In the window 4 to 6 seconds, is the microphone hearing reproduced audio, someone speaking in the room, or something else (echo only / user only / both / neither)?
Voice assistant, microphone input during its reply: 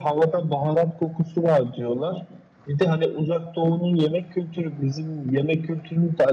echo only